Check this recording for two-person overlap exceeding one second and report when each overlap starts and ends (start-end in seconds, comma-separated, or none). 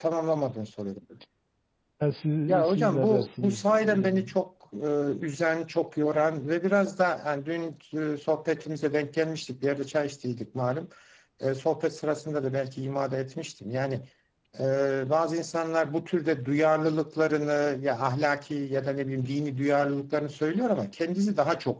2.5-4.2